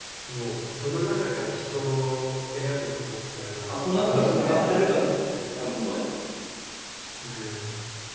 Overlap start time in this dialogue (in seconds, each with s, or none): 3.7 s